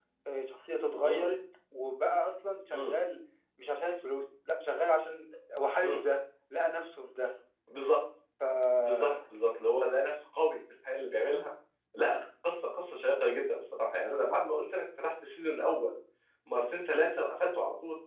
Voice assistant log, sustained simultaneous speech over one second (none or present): none